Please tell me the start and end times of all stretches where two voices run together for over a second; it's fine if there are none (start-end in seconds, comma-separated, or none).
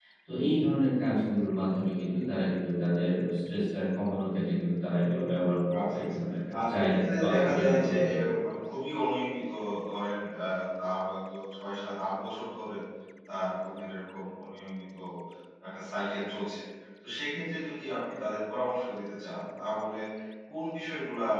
6.7-8.3